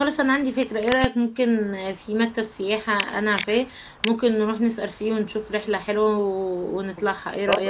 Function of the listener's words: taking over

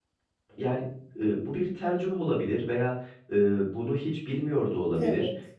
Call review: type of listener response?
listening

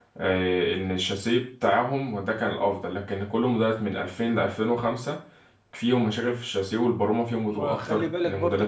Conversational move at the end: taking over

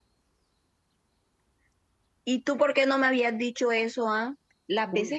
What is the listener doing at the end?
listening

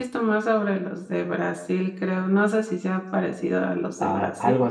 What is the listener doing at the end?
taking over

